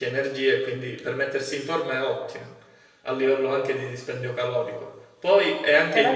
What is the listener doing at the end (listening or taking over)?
listening